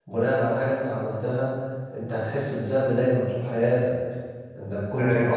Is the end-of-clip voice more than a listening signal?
Yes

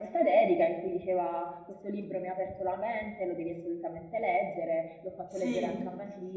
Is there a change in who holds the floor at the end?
No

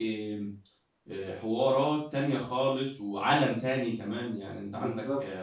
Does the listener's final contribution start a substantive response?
No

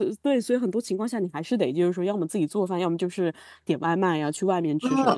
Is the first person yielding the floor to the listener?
No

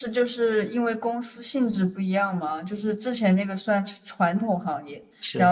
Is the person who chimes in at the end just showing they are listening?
Yes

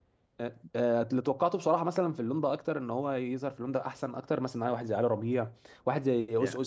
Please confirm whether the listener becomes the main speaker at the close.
Yes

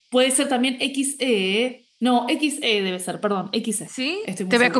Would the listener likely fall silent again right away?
No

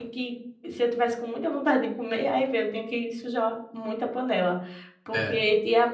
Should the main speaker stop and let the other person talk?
No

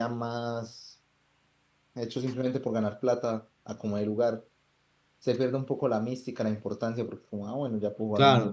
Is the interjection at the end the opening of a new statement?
Yes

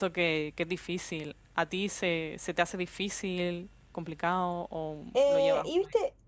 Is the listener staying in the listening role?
No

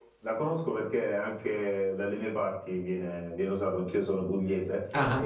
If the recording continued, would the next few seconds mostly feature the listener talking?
No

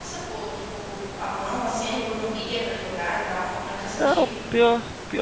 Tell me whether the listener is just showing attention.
No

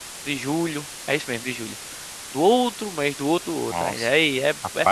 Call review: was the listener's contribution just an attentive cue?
No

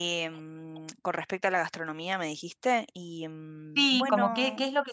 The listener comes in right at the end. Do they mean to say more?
Yes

